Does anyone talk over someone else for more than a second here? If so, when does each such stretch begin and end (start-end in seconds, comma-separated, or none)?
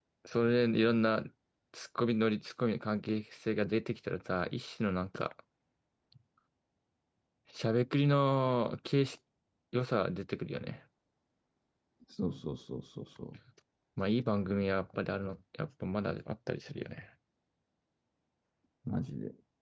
none